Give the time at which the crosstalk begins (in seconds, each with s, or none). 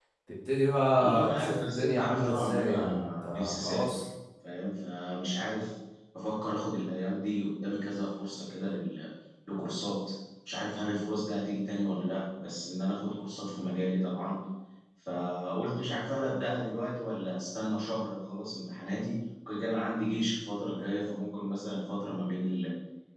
1.0 s